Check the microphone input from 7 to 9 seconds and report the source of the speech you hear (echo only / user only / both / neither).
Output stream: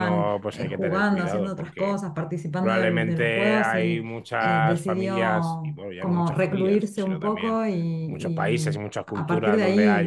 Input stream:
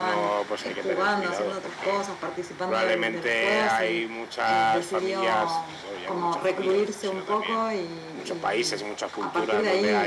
echo only